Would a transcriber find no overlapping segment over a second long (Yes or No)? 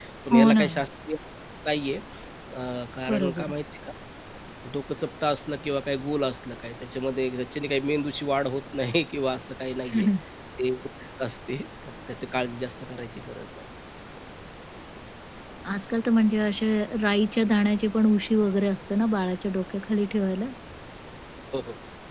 Yes